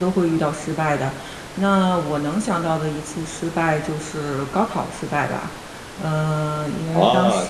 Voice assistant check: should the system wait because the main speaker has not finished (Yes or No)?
No